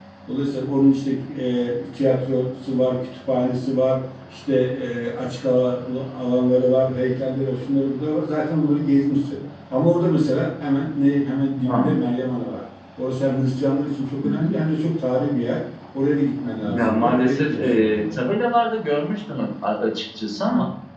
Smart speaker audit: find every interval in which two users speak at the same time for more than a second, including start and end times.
16.7-18.2

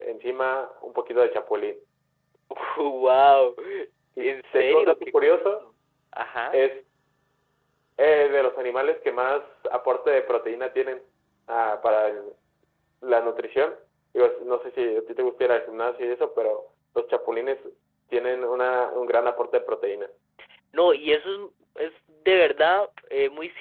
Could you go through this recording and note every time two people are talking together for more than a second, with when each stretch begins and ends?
4.2-5.5

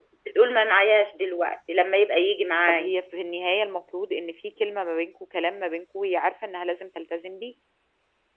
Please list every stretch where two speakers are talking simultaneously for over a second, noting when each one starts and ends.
none

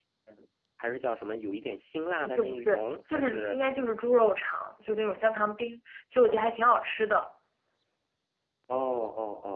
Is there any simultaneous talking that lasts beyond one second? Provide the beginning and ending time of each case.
2.2-3.5

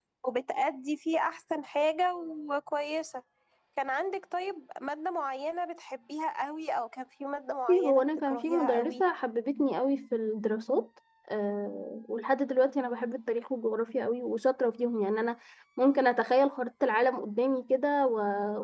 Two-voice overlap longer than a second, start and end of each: 7.7-9.0

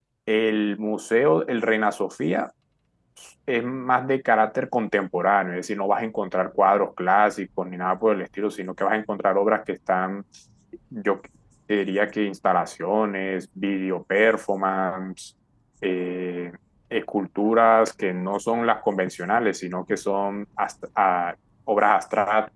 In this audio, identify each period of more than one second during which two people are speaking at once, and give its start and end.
none

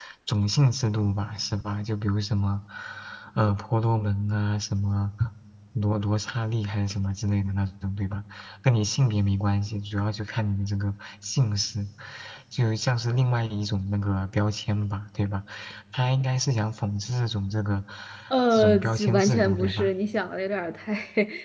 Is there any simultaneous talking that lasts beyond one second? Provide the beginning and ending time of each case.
18.5-19.9

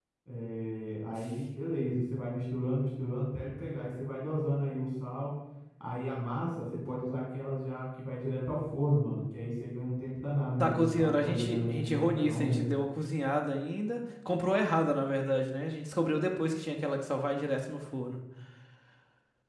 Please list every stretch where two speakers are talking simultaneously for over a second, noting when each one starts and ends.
10.6-12.6

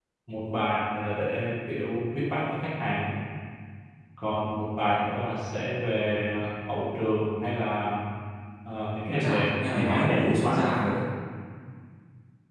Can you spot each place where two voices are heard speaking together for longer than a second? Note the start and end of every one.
9.2-10.7

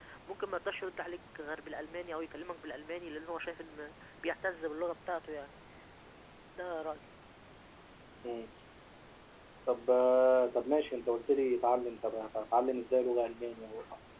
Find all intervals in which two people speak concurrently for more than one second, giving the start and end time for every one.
none

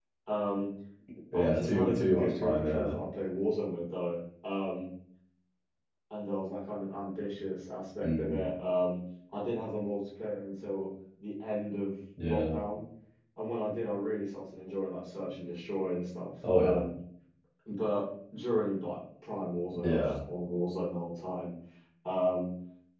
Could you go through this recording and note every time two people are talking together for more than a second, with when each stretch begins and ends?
1.3-3.0

